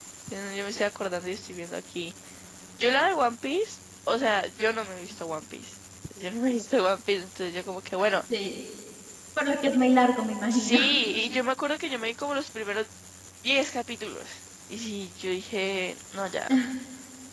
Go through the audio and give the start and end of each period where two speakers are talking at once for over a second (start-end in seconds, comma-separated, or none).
none